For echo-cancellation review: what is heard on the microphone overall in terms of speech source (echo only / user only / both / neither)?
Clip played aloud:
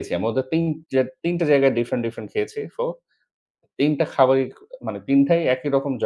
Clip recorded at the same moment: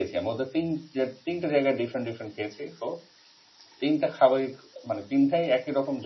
echo only